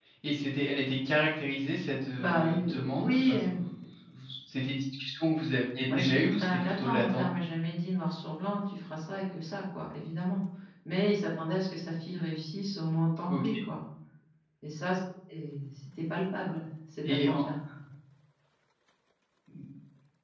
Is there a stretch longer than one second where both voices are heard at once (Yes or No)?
Yes